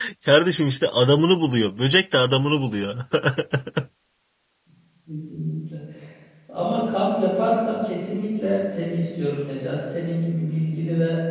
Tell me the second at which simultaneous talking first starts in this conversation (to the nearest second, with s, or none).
none